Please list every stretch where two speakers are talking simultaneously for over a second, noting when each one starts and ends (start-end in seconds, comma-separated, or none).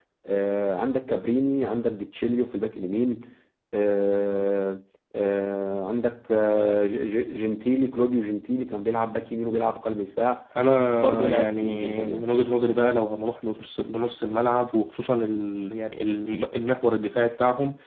10.9-12.3